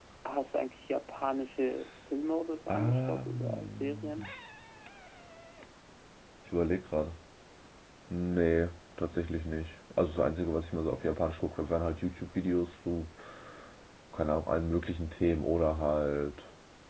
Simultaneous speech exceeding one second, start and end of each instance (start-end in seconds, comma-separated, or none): 2.7-4.1